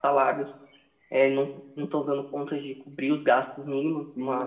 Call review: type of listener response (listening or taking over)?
listening